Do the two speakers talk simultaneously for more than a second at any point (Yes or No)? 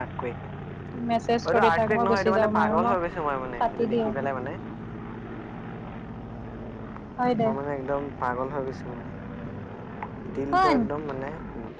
Yes